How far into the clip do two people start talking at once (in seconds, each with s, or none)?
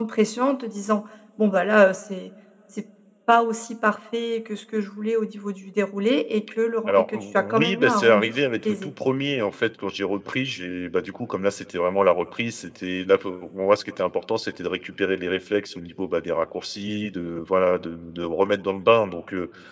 6.9 s